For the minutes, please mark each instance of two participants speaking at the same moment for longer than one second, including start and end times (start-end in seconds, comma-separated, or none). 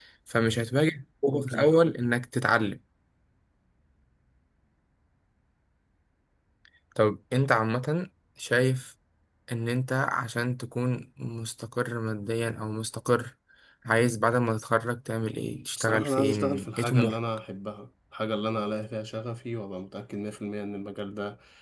15.8-17.2